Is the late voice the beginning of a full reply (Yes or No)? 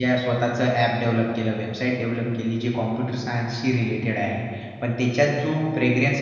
No